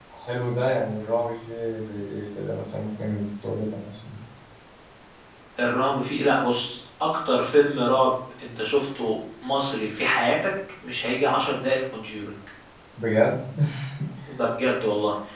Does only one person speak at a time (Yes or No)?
Yes